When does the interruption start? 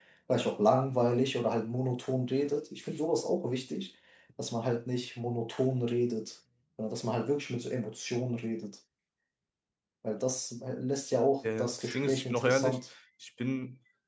11 s

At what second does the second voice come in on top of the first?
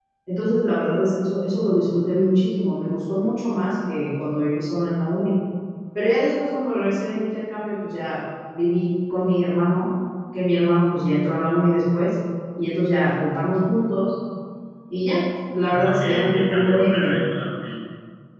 16 s

